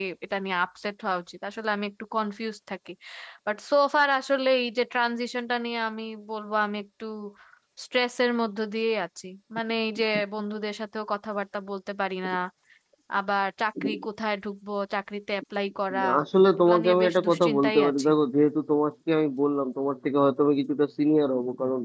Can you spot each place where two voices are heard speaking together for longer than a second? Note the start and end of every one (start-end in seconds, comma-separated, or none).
16.6-18.1